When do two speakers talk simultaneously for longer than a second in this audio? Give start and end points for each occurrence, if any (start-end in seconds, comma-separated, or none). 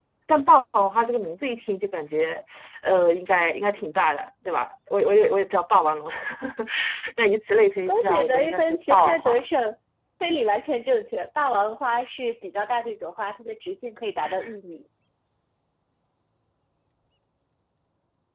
7.9-9.4